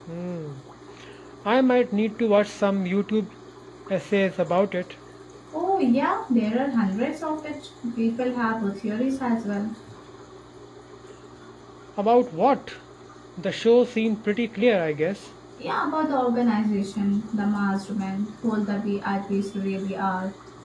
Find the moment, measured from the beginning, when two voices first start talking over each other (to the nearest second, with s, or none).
none